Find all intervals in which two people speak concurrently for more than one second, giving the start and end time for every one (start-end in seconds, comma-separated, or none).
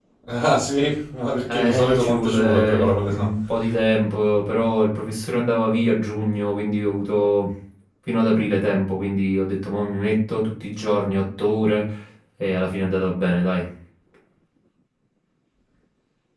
1.5-3.3